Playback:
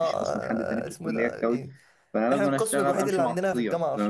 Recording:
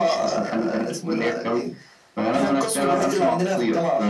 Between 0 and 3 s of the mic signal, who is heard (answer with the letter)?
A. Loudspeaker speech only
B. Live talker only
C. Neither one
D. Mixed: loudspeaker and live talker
A